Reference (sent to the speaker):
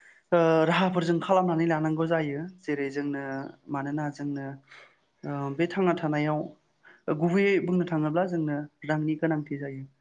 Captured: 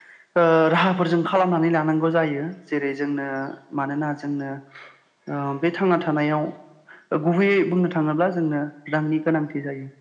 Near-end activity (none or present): none